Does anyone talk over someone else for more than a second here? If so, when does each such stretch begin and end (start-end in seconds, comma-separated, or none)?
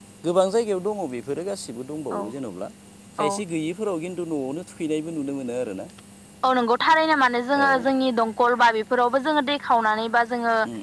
none